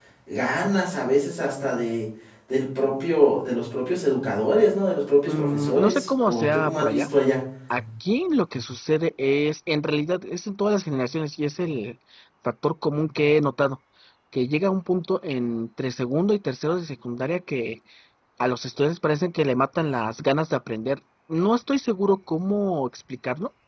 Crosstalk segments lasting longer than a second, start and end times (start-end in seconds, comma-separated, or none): 5.3-7.1